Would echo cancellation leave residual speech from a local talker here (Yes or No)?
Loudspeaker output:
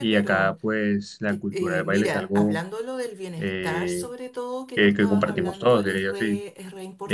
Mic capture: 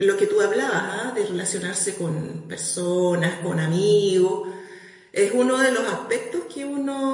Yes